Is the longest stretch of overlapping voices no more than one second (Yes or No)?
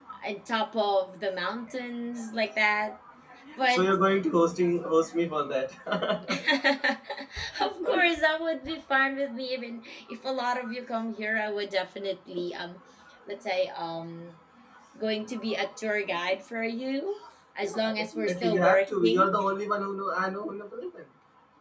No